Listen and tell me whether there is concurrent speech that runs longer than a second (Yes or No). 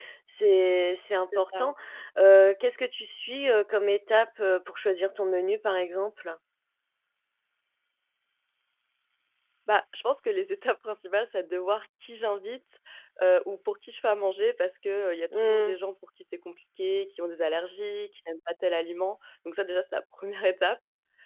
No